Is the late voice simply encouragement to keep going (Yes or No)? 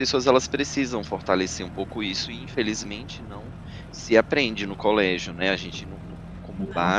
Yes